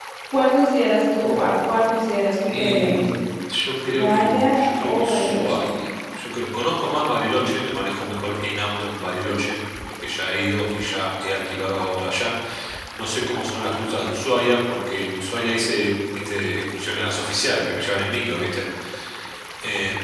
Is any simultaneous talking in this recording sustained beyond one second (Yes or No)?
Yes